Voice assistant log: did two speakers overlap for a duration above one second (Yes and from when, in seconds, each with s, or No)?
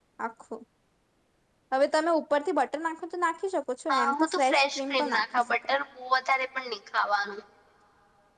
Yes, from 3.9 s